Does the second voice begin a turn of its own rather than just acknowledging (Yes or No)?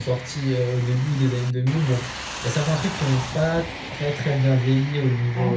No